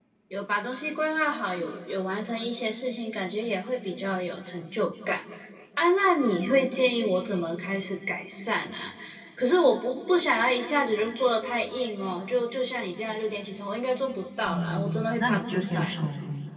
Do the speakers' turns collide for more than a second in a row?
Yes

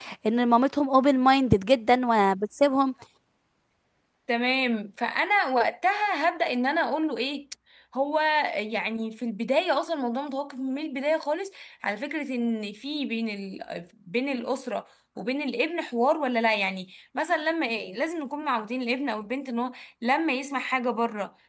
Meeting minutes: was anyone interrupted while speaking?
No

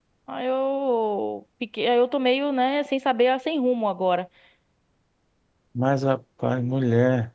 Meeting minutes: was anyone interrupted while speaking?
No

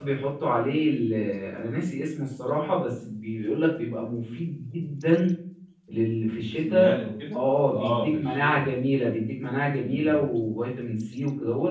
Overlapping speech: Yes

